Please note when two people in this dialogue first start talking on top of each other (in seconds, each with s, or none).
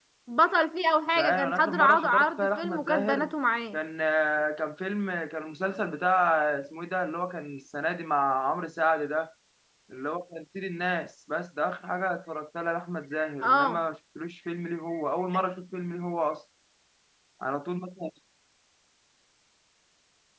1.2 s